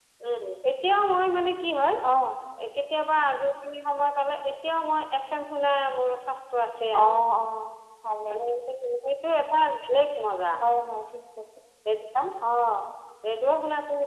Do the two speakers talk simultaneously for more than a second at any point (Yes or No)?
No